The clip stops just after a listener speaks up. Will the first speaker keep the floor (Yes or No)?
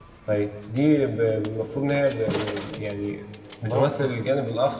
Yes